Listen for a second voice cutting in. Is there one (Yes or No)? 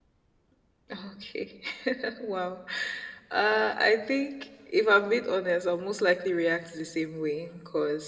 No